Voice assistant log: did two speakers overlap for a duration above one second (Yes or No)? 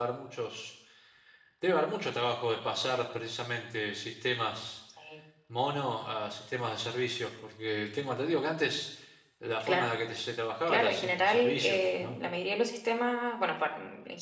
Yes